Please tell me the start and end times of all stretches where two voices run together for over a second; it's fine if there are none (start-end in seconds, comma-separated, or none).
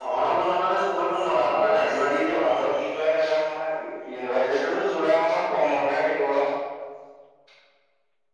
1.4-2.6